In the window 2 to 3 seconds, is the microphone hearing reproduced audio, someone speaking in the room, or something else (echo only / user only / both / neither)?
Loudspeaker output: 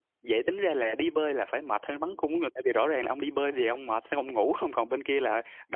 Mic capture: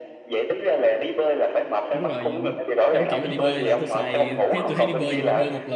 both